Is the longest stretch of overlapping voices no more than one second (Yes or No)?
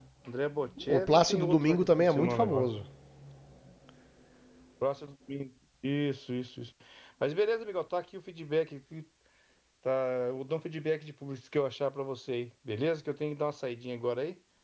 No